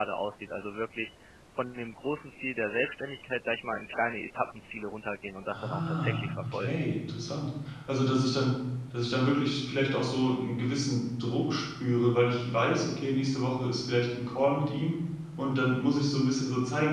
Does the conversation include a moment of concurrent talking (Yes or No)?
Yes